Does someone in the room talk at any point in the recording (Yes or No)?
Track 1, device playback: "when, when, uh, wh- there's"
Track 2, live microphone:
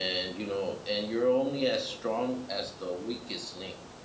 Yes